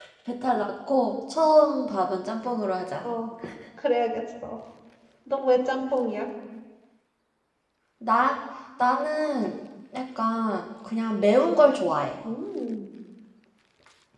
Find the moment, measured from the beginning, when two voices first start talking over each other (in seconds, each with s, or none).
none